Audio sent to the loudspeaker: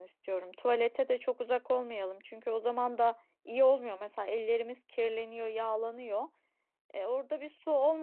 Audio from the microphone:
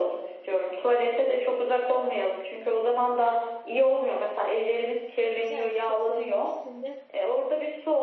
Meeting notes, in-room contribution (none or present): present